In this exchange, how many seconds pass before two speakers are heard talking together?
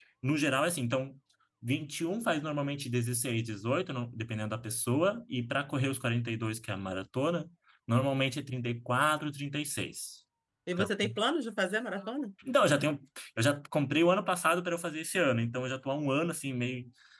none

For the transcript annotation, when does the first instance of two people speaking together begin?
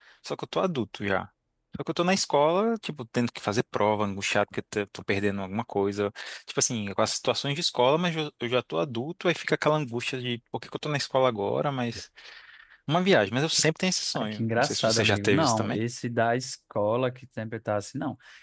14.1 s

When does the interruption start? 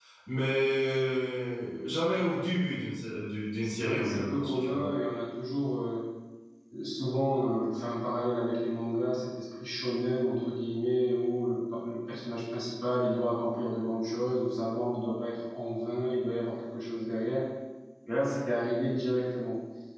3.6 s

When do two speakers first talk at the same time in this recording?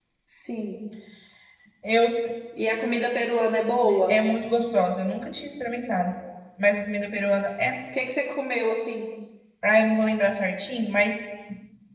none

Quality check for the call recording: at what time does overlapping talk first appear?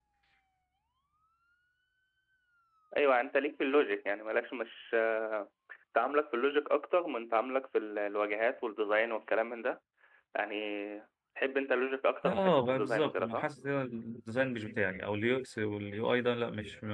12.2 s

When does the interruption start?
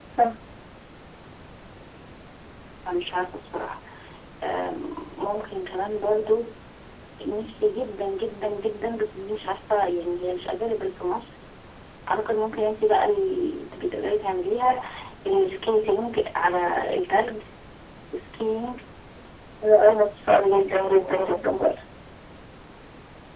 none

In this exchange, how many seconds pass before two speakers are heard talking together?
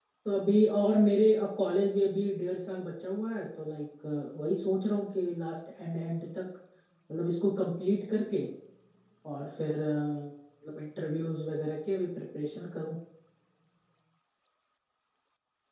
none

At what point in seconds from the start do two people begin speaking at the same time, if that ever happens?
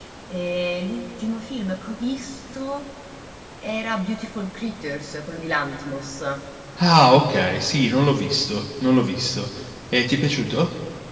none

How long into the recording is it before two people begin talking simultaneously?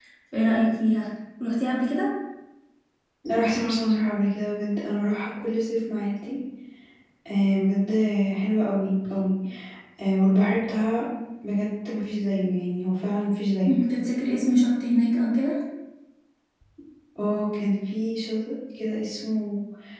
none

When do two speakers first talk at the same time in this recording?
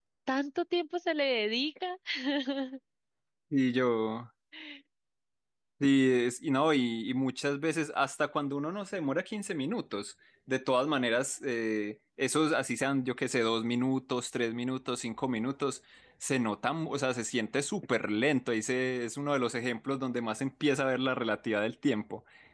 none

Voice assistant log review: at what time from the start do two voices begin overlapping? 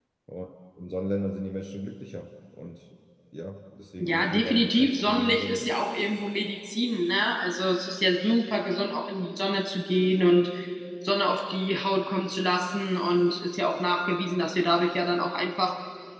4.0 s

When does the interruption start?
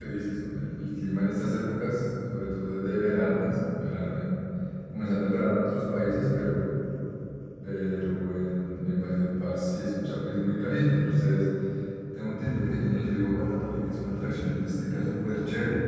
none

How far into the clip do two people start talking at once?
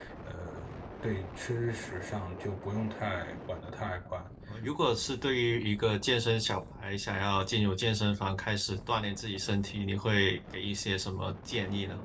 none

